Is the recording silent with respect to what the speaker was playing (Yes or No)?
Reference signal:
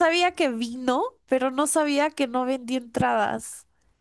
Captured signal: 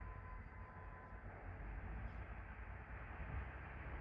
Yes